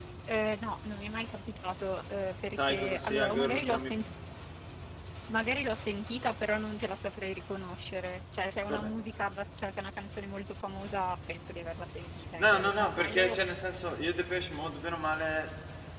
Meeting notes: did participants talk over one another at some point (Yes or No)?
Yes